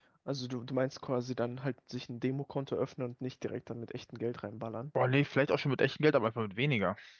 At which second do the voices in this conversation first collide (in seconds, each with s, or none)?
none